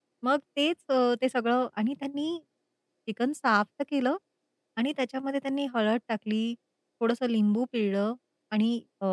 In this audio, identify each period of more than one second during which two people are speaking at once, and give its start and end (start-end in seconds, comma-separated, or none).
none